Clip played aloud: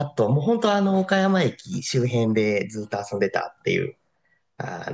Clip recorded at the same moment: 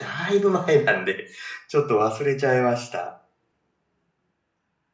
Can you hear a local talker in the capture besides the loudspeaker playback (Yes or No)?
Yes